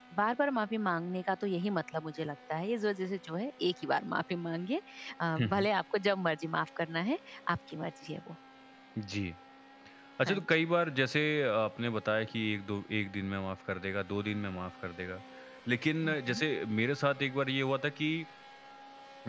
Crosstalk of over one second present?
No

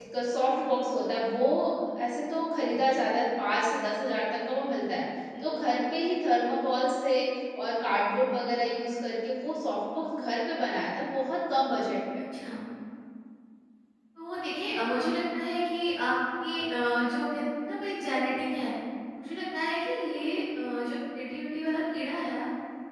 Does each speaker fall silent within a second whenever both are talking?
Yes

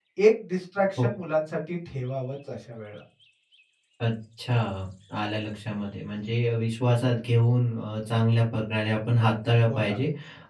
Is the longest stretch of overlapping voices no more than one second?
Yes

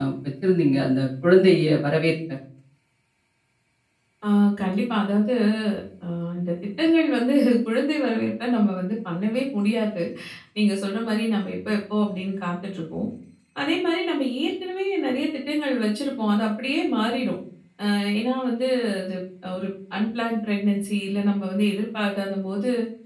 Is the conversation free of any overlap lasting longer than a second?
Yes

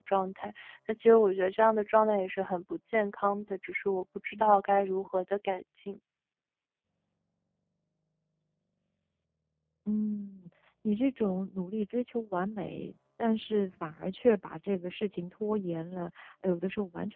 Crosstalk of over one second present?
No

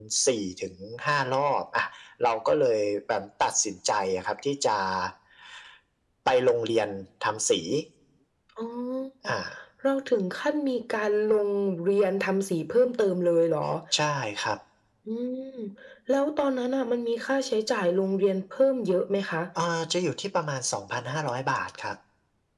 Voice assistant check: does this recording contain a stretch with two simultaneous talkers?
No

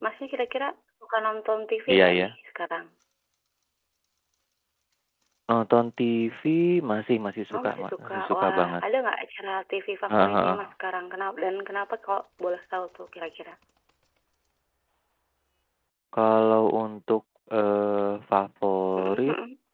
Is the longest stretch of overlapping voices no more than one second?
No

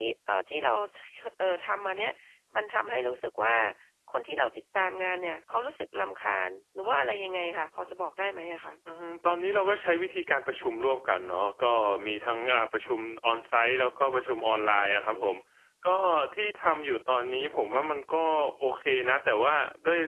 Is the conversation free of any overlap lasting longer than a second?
Yes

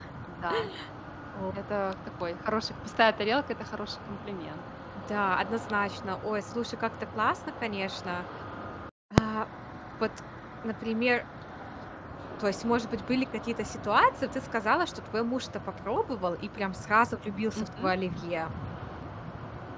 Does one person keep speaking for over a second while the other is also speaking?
No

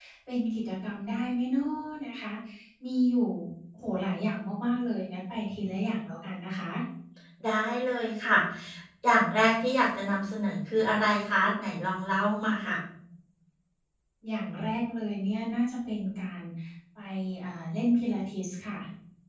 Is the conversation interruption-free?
Yes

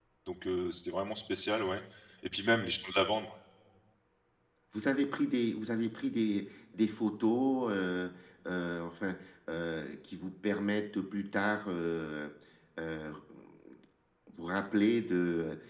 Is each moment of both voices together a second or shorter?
Yes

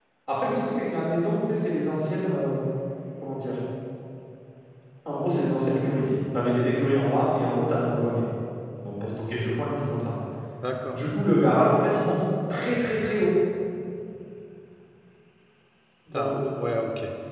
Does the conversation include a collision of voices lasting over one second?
No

